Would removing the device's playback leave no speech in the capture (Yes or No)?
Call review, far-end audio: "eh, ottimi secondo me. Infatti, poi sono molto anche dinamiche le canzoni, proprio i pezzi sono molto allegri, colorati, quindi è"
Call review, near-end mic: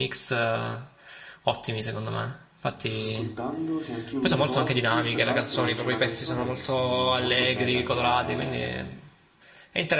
No